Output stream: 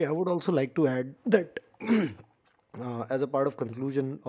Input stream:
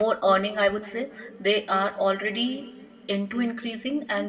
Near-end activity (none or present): present